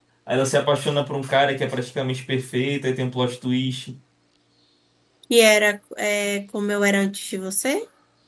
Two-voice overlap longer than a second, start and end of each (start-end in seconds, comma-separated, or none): none